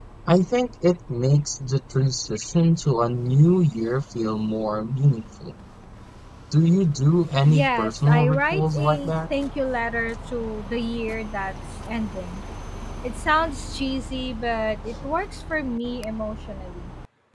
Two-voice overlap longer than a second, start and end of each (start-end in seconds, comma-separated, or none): 7.5-9.1